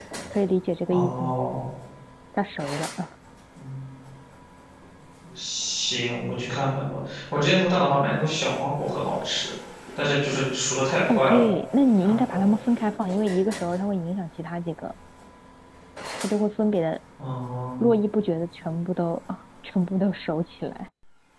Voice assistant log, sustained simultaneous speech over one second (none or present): none